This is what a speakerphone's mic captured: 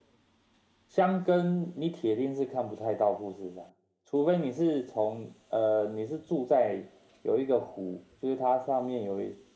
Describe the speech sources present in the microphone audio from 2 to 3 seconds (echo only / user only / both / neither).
echo only